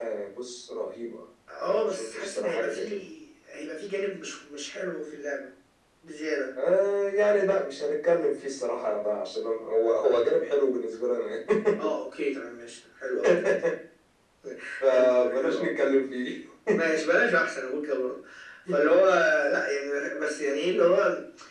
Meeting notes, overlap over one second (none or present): present